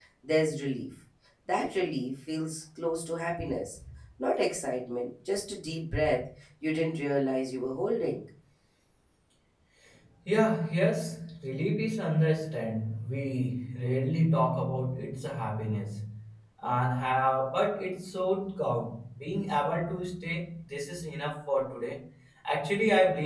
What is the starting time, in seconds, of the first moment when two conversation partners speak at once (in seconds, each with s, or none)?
none